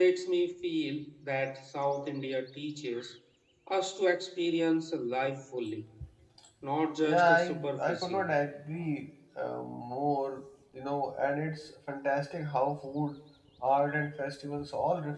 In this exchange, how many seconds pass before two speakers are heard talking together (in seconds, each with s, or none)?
7.0 s